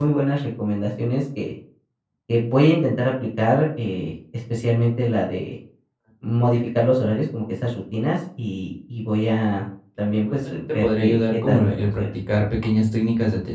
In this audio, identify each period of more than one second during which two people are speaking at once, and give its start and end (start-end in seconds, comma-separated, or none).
10.0-12.1